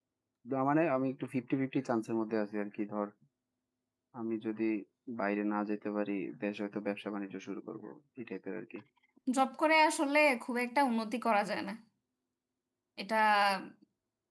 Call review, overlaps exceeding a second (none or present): none